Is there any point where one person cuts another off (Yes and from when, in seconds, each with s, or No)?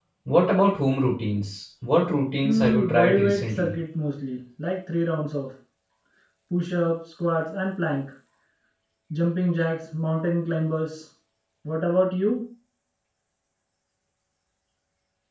Yes, from 2.4 s